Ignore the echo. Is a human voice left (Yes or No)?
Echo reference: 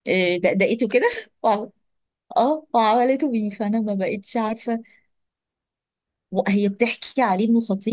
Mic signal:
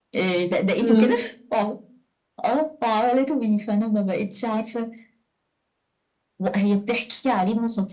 Yes